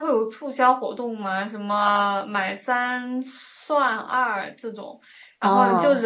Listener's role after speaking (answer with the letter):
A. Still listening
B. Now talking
A